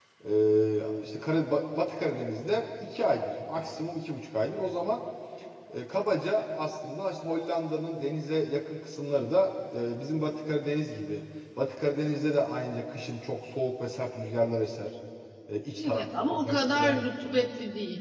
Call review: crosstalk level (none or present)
present